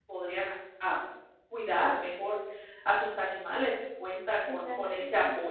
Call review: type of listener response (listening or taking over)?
listening